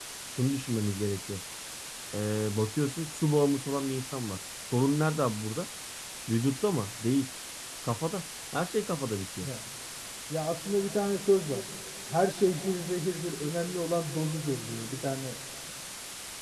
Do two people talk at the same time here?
No

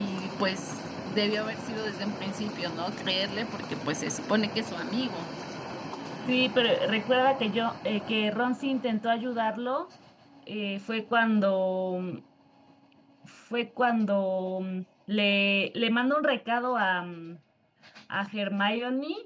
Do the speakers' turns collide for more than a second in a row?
No

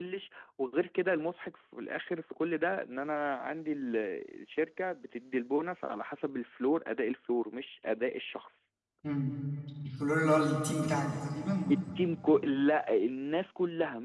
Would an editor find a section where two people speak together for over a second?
No

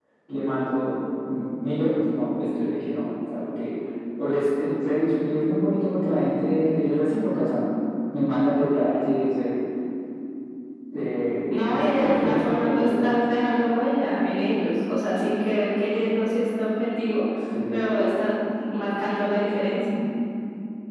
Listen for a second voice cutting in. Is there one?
Yes, from 11.7 s

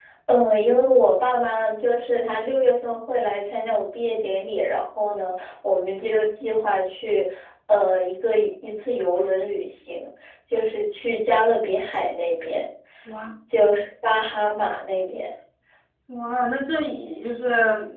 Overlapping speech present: No

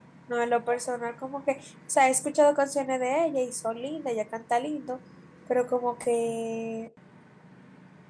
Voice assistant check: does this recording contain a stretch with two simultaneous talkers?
No

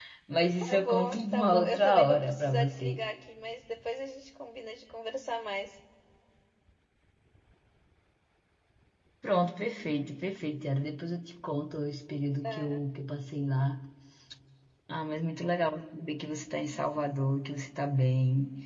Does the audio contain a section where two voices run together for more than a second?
Yes, from 0.7 s

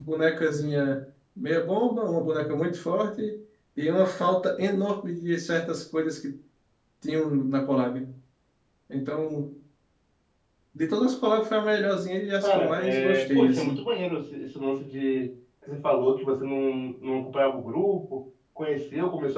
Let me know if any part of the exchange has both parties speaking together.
Yes, from 12.4 s

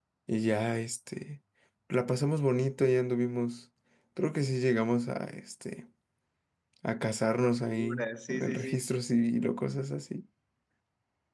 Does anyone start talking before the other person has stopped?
Yes, from 7.4 s

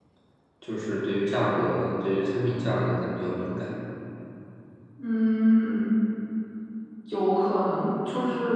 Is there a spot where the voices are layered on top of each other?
No

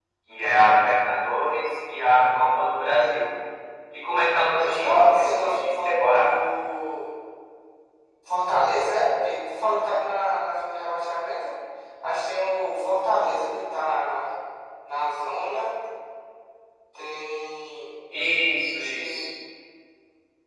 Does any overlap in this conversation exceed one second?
Yes, from 4.6 s

